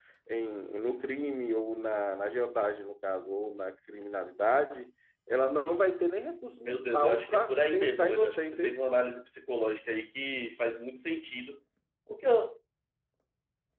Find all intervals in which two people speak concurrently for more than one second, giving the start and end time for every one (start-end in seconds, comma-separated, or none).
6.6-8.8